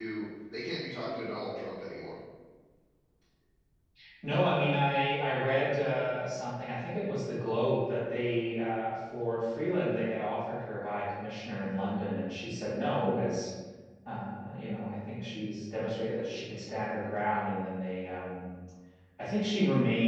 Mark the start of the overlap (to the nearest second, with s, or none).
none